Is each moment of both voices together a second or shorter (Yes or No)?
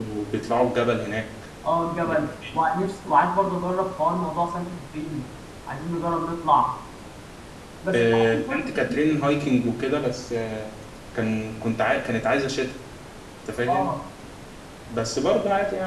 No